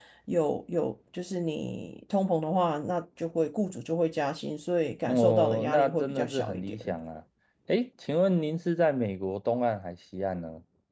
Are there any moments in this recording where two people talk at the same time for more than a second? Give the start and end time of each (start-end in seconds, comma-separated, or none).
5.0-6.8